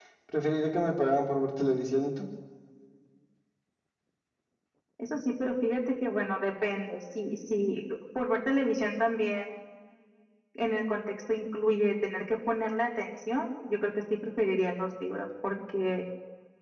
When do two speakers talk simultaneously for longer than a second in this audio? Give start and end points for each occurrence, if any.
none

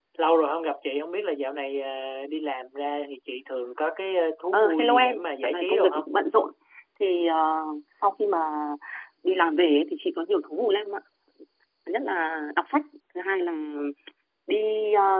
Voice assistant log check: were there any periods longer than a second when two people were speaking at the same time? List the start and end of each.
4.5-6.0

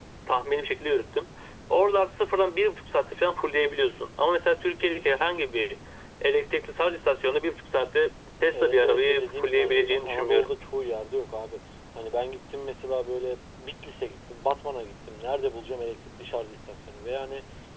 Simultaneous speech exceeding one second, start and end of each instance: 8.5-10.5

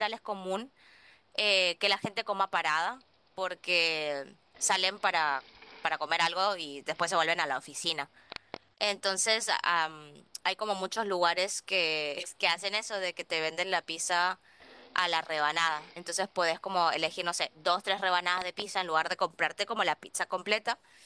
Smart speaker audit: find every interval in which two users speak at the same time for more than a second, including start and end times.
none

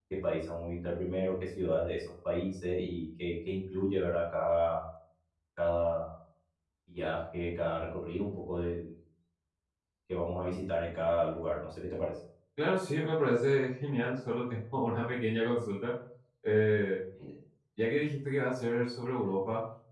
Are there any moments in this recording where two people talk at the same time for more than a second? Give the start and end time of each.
none

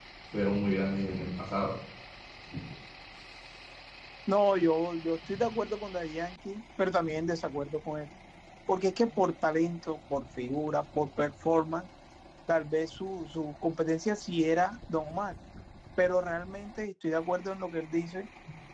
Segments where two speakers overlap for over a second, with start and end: none

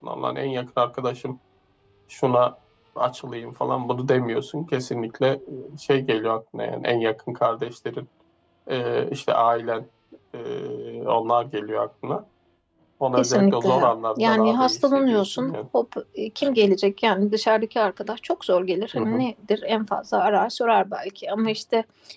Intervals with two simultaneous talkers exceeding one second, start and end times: 13.2-15.5

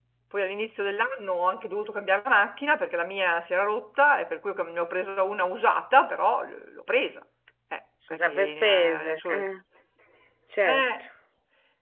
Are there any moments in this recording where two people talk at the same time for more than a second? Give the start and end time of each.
8.2-9.4

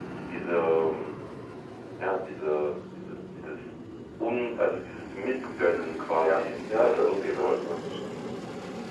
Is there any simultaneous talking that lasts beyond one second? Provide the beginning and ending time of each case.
6.2-7.7

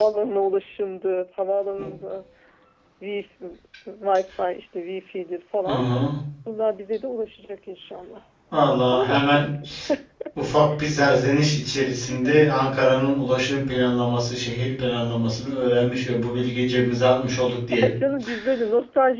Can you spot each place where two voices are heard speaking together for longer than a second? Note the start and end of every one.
none

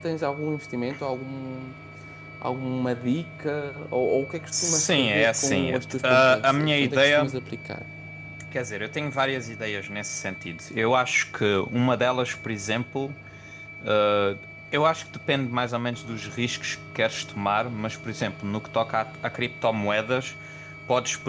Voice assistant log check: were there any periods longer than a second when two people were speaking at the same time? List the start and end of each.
4.5-7.3

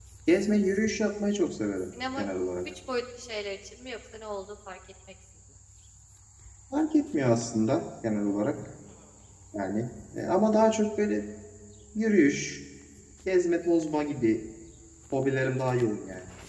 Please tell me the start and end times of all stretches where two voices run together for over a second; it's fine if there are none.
none

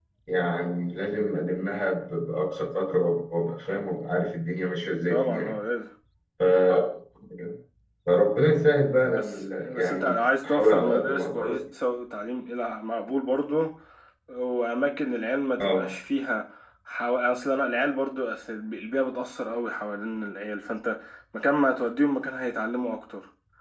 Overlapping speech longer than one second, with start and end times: 9.1-11.4

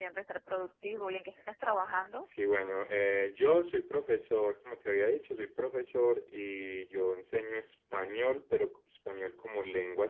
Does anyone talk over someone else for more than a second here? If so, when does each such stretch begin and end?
none

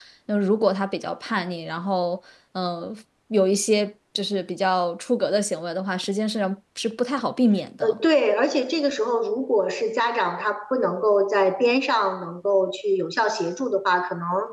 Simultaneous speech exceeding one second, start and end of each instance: none

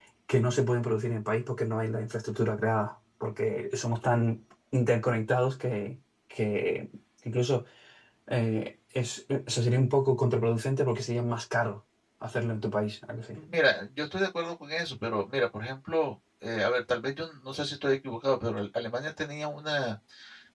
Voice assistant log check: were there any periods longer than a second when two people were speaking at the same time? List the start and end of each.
none

